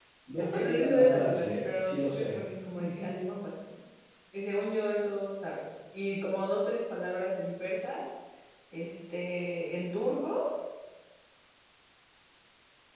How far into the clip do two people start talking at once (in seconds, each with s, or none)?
0.5 s